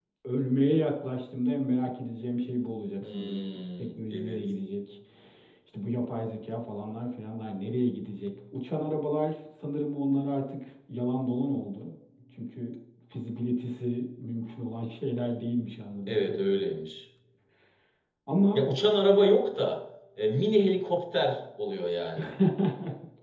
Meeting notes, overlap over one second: present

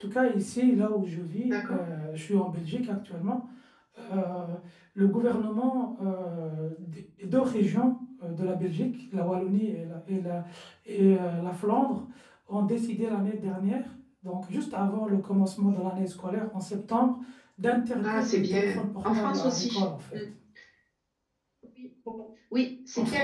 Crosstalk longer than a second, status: present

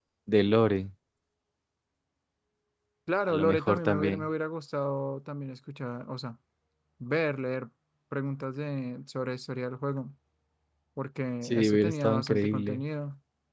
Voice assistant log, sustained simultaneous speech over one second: present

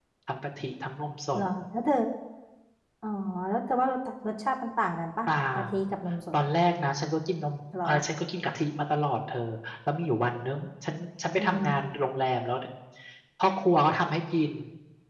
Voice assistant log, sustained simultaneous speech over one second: none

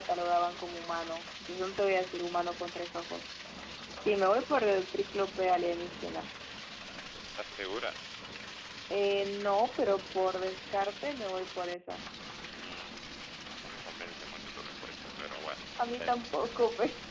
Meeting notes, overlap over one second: none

